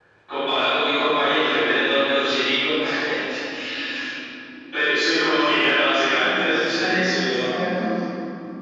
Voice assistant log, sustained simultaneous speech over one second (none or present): present